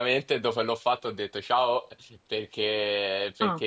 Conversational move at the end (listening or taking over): listening